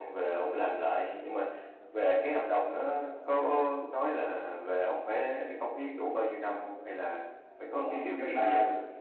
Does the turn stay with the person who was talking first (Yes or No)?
No